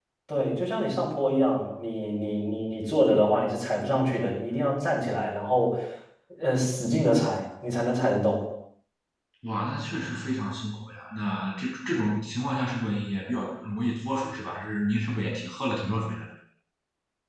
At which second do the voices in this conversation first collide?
none

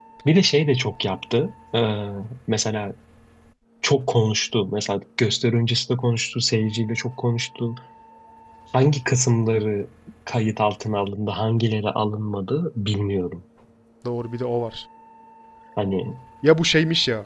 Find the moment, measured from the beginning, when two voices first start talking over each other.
none

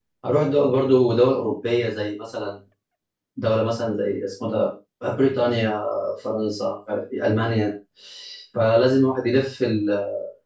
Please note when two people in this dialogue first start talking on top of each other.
none

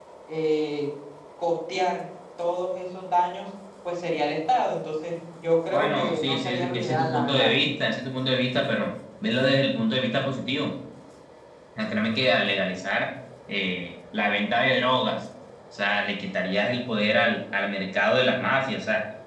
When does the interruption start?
6 s

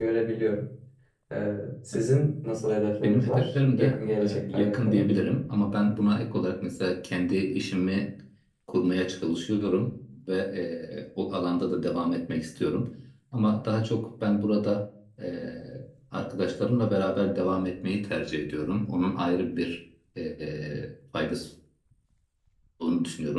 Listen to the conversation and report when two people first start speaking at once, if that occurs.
3 s

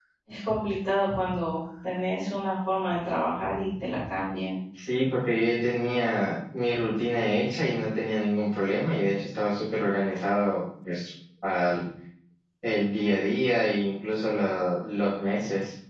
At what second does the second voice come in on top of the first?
none

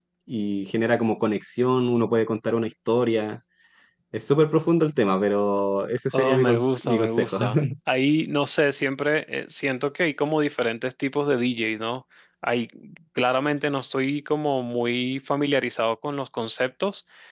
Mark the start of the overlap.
6 s

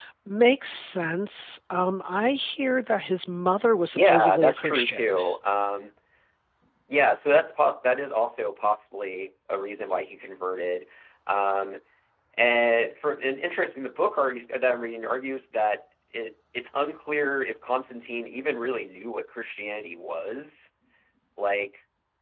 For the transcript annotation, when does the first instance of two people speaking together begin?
4 s

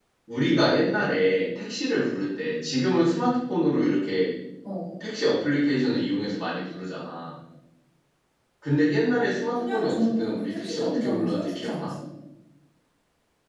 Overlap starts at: 10 s

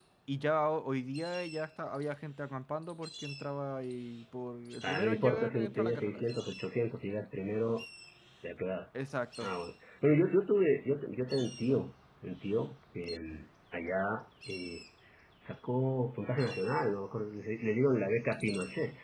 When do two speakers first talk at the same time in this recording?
5 s

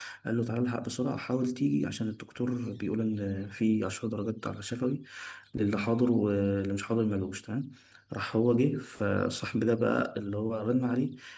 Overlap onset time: none

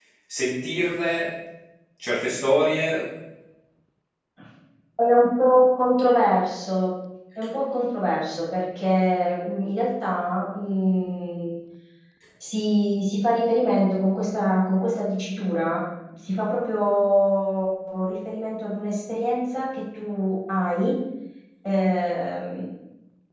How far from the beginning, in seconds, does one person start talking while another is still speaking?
none

